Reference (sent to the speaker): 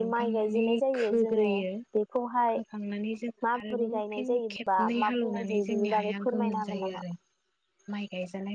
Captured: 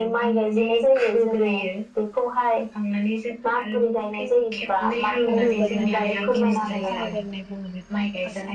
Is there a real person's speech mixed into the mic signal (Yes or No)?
Yes